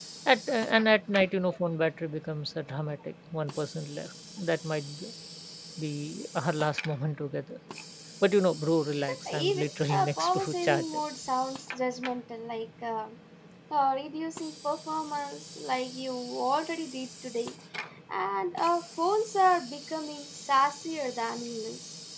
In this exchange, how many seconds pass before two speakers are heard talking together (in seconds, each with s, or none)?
9.0 s